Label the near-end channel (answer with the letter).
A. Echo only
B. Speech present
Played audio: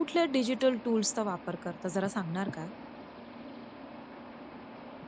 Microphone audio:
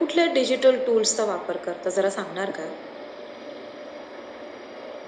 A